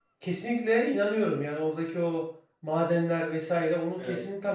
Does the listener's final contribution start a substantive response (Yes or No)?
No